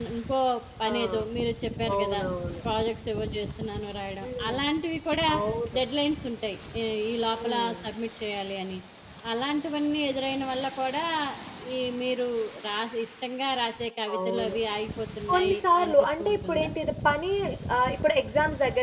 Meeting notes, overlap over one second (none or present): present